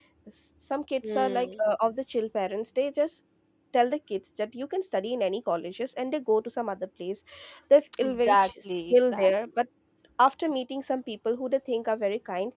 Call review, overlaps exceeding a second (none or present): present